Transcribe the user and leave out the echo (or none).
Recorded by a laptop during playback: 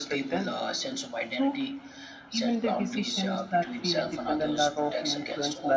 none